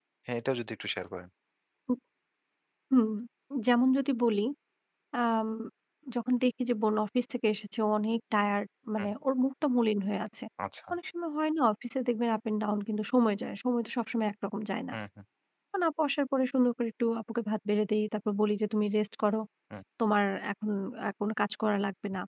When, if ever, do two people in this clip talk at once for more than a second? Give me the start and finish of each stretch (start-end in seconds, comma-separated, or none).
none